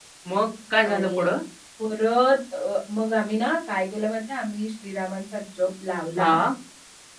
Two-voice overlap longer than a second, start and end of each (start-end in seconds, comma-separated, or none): none